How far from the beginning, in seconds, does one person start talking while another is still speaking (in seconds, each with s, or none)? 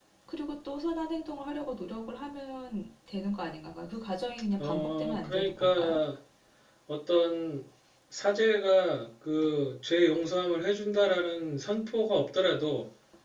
4.6 s